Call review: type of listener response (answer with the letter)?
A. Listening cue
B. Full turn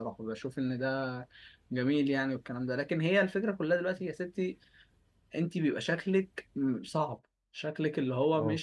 A